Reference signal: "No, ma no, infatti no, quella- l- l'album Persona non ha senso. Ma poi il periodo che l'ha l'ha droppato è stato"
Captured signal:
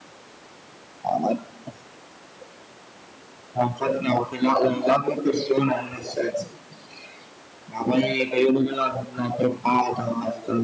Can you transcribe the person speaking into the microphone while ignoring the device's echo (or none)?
none